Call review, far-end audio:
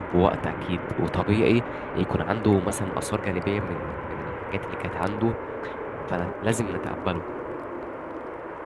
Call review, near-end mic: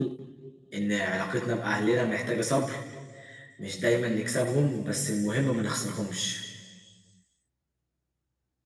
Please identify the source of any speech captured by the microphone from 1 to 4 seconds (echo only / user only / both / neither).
user only